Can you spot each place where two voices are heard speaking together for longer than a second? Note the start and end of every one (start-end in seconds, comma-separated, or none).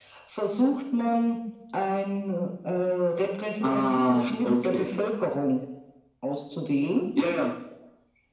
3.6-4.9